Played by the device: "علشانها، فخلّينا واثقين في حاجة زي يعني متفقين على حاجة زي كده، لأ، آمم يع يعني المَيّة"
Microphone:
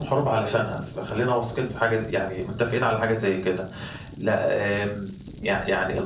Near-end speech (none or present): none